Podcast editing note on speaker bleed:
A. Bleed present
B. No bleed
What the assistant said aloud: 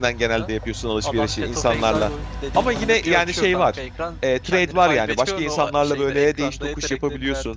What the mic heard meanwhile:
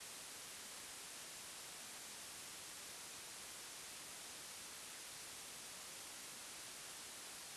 B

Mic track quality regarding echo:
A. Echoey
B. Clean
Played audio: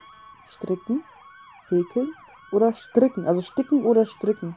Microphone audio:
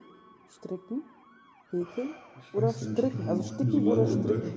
A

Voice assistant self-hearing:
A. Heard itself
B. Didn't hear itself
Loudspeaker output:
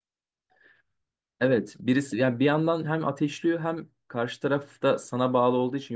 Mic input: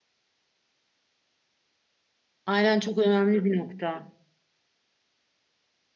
B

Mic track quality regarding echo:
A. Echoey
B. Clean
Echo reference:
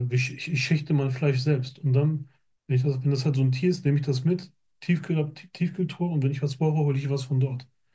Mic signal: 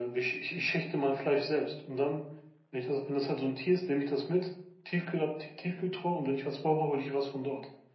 A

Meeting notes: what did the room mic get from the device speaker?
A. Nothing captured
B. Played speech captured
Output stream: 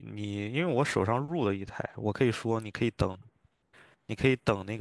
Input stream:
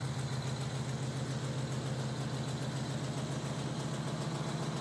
A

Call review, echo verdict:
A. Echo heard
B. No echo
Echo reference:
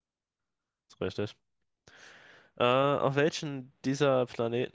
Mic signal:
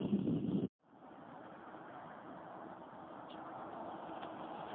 B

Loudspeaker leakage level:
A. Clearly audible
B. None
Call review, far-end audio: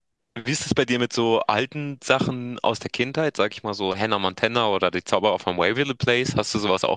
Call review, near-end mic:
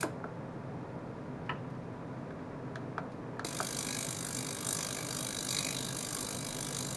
B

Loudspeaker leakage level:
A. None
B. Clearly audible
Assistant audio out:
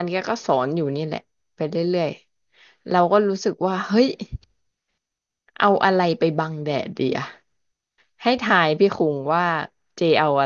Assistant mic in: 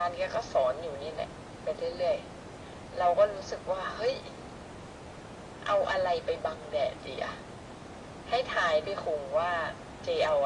B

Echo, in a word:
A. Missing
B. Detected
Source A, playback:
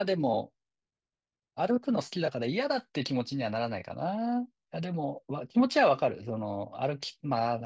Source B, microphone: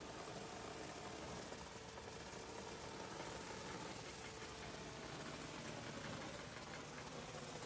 A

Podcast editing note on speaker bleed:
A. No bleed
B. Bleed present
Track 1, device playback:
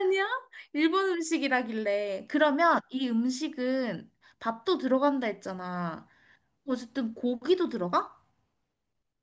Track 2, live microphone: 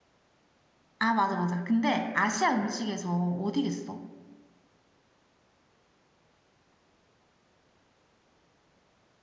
A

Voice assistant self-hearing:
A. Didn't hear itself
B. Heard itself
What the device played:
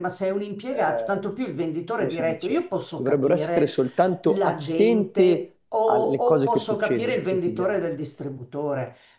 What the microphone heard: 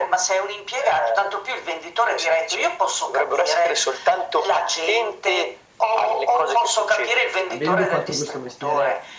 B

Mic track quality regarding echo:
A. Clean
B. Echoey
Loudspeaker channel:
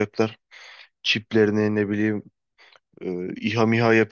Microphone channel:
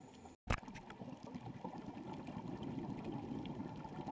A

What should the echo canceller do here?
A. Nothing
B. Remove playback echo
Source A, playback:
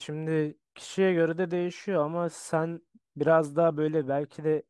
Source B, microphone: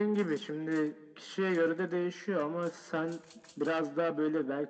B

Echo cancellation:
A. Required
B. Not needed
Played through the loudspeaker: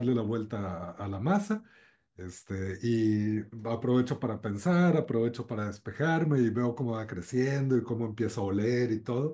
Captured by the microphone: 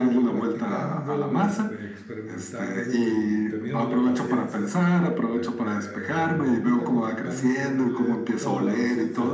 A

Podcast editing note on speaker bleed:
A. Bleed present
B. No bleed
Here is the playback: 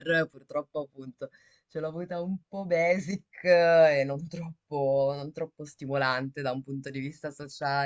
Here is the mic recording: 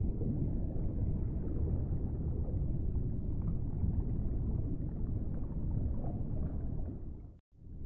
B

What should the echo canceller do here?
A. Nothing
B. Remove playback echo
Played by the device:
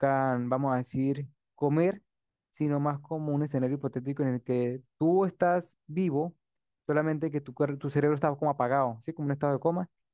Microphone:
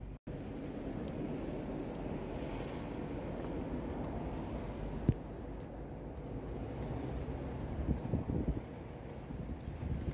A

